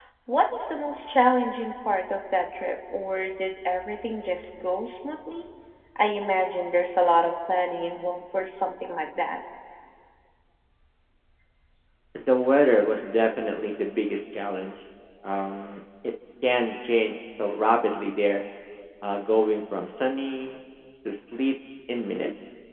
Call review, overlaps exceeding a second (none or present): none